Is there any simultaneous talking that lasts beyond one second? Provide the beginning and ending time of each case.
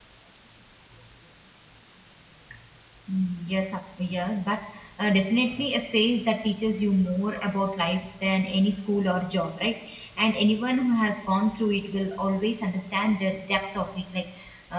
none

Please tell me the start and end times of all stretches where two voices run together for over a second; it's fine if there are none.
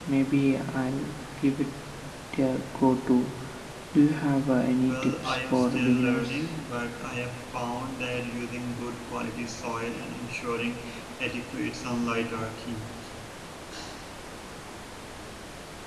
4.8-6.3

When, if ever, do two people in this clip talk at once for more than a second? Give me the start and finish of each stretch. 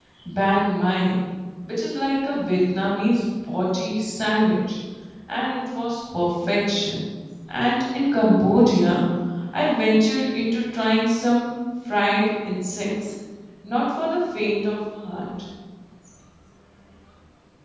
none

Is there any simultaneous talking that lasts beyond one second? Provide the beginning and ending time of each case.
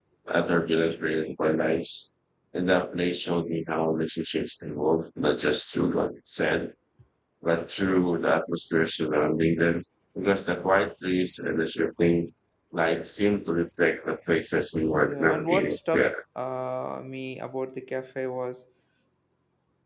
14.9-16.2

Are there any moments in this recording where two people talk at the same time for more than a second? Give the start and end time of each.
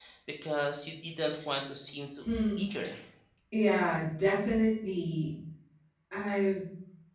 none

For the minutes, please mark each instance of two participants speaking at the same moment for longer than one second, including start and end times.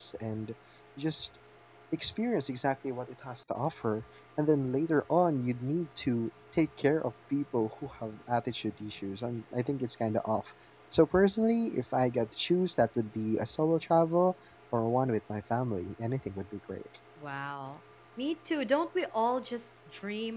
none

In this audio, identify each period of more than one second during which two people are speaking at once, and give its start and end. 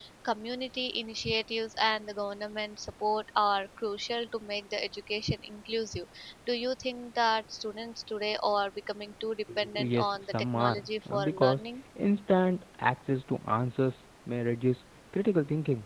9.8-11.6

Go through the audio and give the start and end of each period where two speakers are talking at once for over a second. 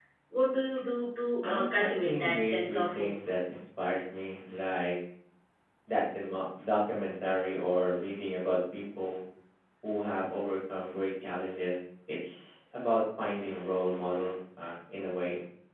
1.4-3.1

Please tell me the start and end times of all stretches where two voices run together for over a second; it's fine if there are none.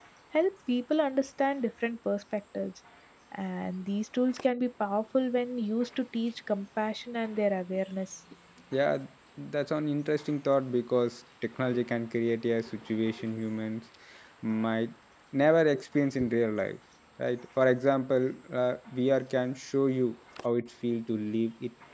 none

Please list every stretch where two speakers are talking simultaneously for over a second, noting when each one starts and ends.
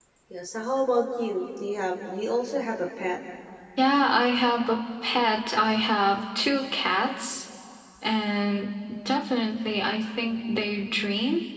none

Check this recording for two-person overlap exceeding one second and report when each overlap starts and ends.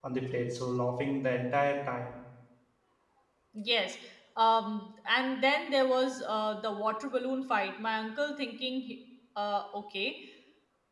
none

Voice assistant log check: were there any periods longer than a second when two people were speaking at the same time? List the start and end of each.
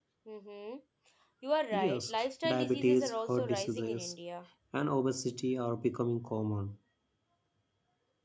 1.7-4.1

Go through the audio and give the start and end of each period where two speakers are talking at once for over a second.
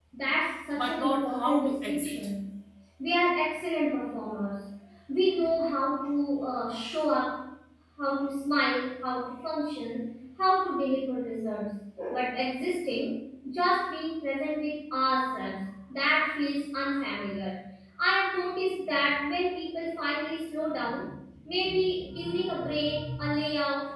0.8-2.1

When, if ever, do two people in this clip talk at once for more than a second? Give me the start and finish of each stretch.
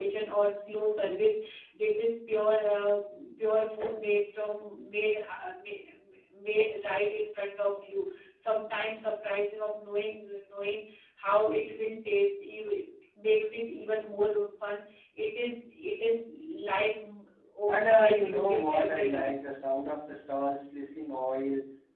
17.7-19.4

